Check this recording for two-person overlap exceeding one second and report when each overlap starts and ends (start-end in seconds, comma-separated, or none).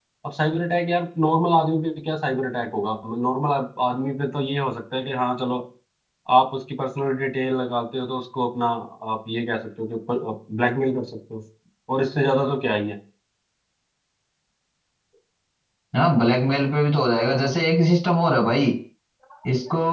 none